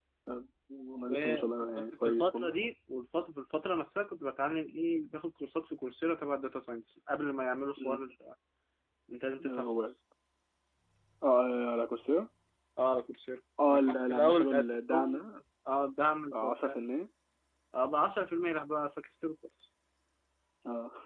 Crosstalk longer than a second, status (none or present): present